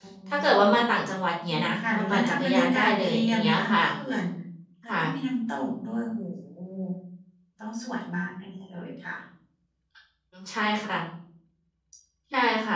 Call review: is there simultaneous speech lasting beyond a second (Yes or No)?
Yes